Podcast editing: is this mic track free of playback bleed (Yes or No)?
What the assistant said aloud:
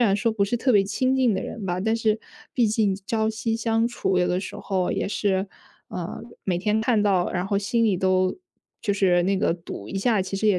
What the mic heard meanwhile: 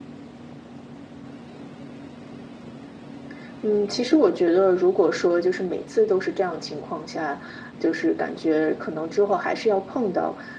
Yes